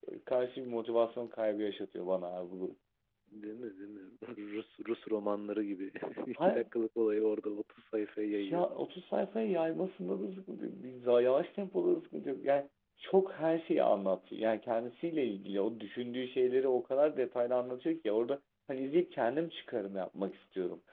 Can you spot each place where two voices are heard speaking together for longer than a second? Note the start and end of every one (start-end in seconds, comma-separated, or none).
none